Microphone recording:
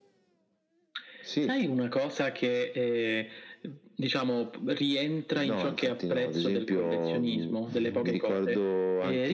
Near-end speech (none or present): present